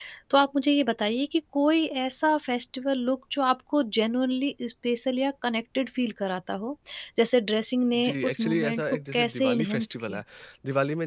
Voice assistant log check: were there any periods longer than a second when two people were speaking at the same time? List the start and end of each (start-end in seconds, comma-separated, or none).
7.9-10.2